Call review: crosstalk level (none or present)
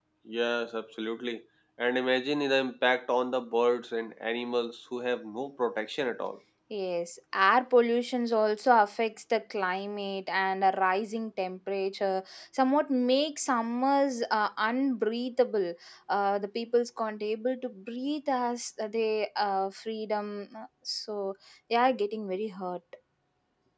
none